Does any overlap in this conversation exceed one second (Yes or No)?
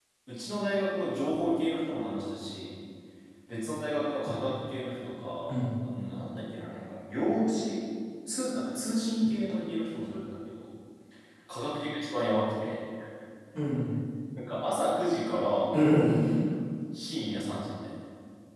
No